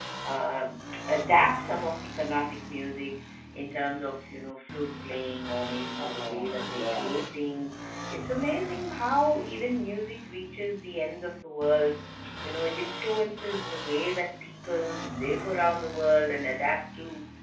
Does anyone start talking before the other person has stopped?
Yes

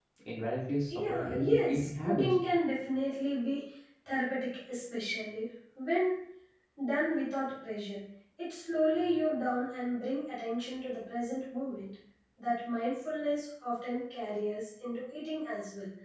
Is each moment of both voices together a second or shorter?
No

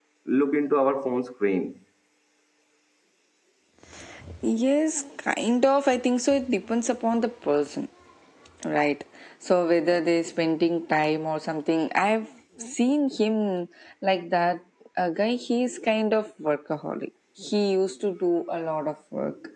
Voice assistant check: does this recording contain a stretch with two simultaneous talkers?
No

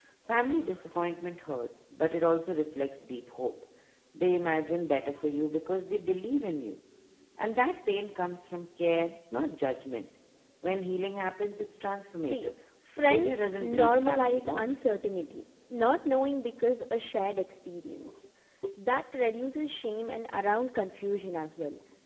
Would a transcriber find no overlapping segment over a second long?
No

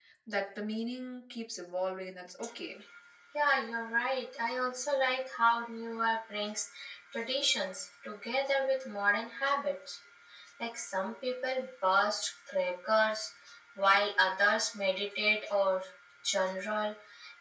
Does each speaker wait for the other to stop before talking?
Yes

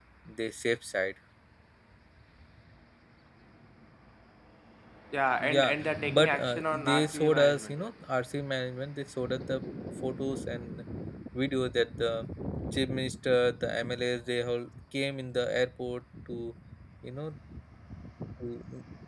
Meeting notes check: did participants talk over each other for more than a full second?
Yes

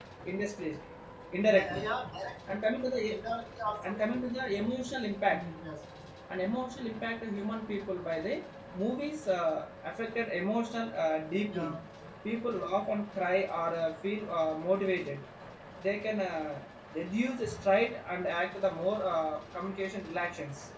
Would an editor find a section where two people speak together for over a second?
No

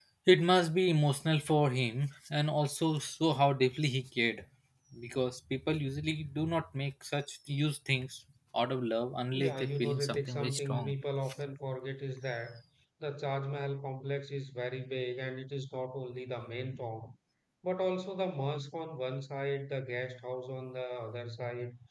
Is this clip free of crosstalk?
No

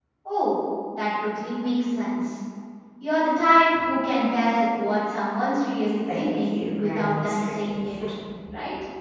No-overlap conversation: No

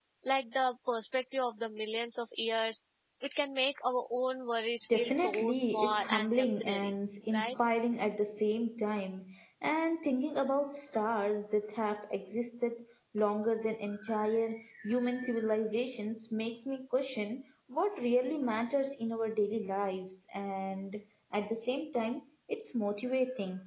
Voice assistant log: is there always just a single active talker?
No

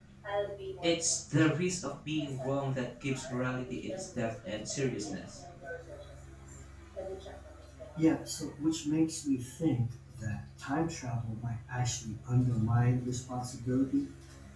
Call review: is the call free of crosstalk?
No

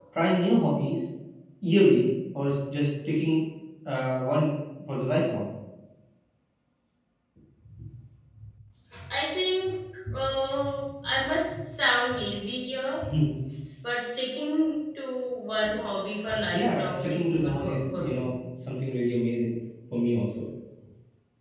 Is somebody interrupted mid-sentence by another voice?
Yes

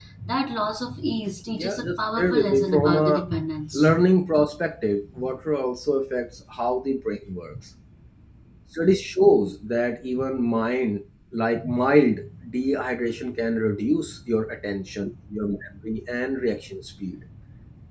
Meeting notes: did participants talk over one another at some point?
Yes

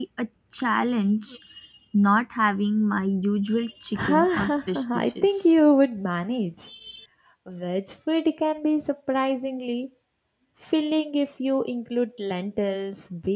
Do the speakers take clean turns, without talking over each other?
No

